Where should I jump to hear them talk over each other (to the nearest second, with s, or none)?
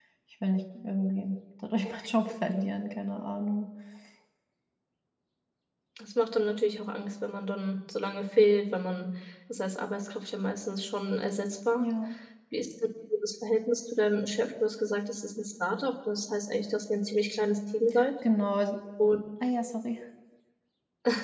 none